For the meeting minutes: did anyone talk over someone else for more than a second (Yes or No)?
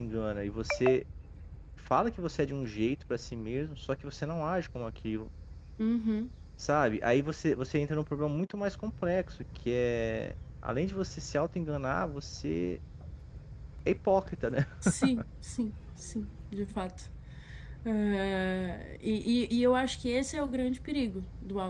No